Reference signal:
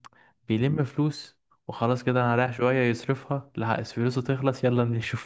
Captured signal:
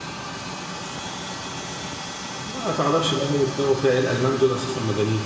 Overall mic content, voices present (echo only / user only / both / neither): user only